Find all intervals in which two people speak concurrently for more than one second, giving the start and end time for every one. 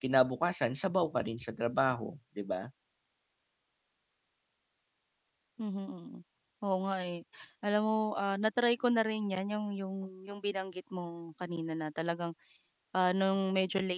none

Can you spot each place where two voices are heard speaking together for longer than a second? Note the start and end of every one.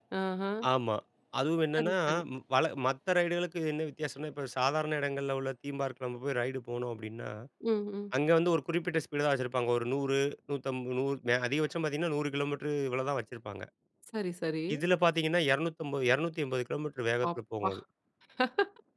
none

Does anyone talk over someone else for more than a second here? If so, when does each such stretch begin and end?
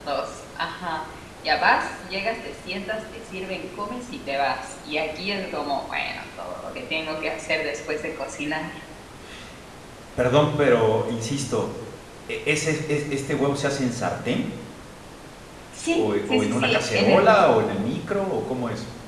15.9-17.4

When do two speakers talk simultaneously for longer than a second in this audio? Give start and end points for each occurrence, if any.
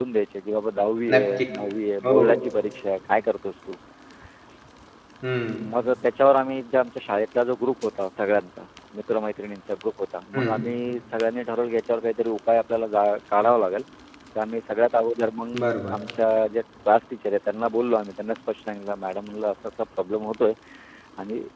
none

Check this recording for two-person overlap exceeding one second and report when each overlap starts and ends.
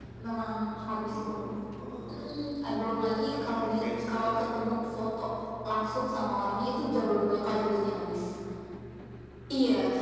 3.3-4.6

